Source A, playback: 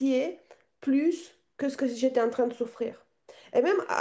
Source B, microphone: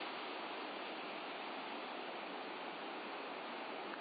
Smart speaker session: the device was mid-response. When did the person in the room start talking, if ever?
none

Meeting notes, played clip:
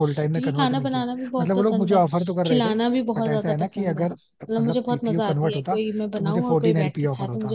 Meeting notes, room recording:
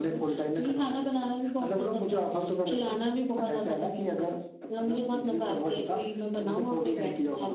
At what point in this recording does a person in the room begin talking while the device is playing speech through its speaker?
none

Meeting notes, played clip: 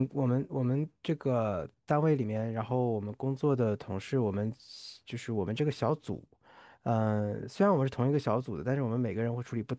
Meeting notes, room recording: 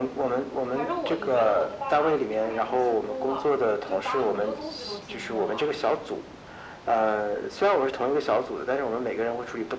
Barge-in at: 1 s

